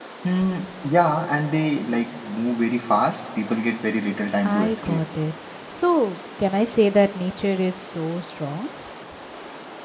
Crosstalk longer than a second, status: none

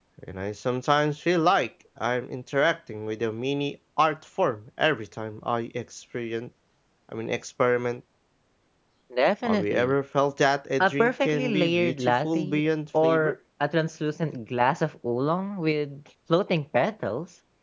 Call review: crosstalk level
present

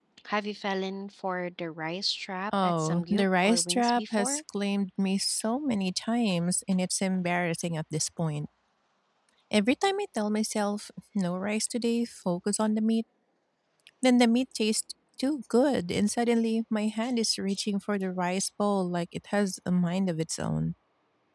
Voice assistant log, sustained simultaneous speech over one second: present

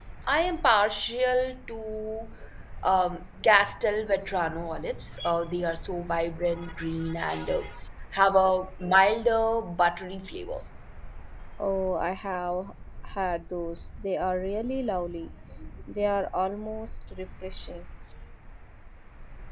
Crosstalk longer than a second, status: none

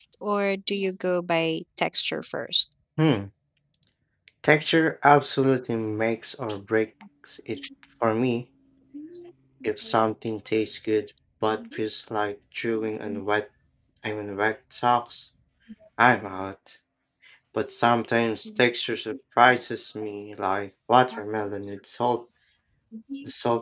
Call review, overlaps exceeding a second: none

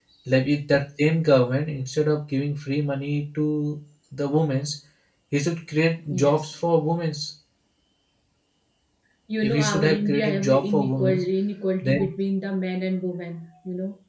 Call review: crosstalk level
present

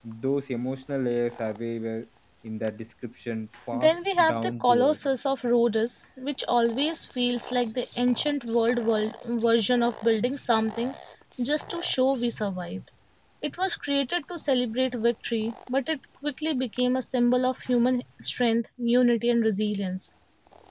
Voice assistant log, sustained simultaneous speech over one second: present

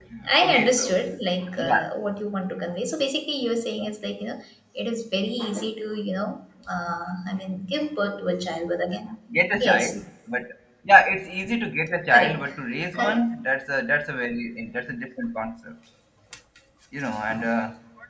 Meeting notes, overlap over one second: none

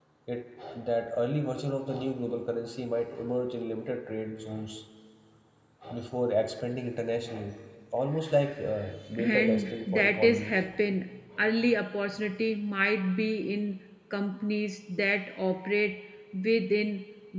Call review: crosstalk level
present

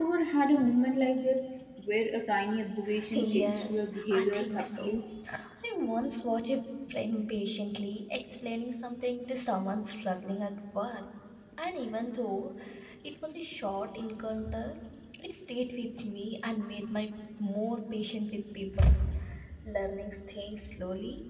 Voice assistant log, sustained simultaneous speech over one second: present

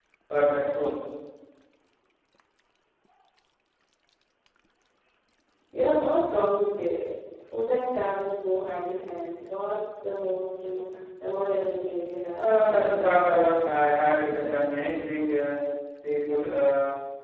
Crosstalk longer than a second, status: present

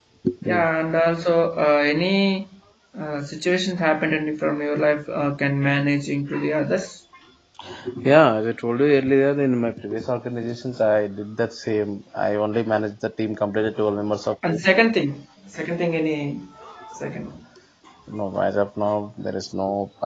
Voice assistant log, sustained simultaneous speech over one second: none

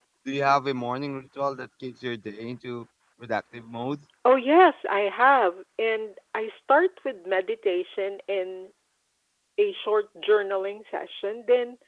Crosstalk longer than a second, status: none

